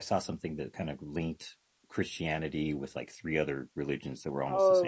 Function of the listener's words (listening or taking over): taking over